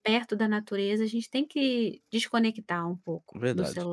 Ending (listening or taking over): taking over